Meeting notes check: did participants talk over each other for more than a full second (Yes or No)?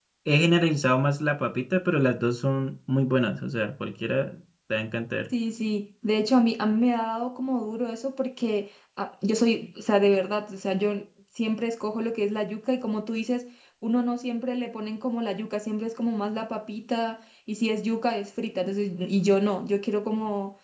No